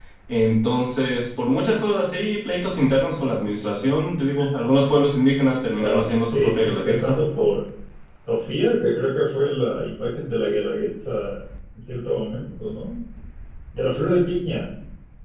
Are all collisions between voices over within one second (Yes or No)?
No